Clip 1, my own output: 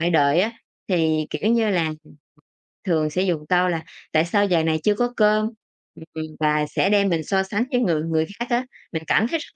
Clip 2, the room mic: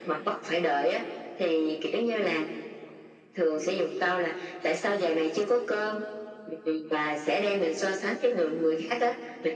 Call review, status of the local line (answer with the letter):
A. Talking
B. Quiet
B